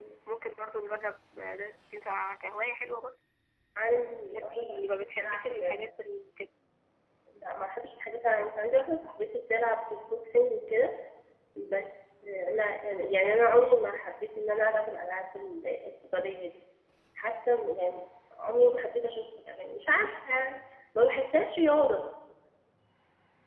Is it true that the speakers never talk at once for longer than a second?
No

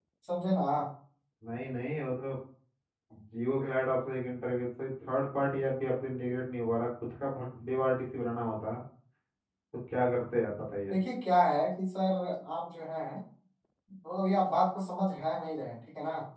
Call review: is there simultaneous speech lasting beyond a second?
No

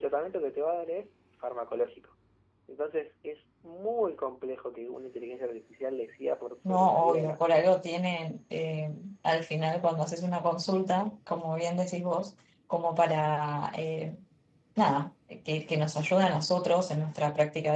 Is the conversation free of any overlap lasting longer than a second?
No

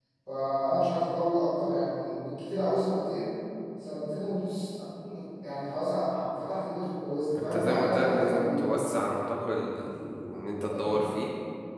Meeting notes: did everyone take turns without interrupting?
No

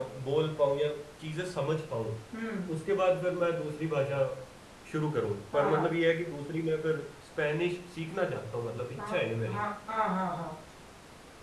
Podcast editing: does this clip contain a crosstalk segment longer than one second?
No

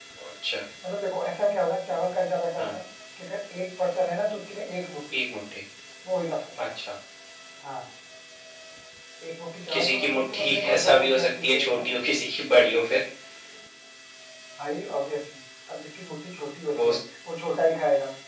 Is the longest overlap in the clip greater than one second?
Yes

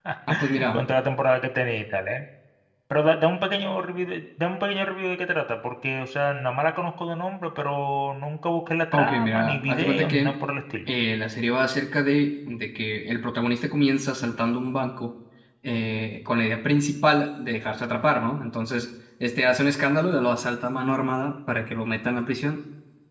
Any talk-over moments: Yes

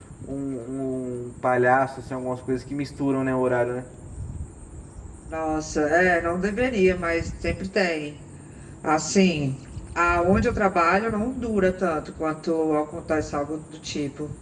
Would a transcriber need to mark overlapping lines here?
No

